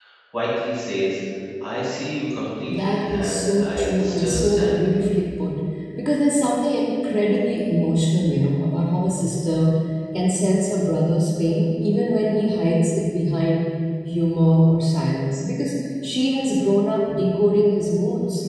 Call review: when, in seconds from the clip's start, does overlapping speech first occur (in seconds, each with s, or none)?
2.7 s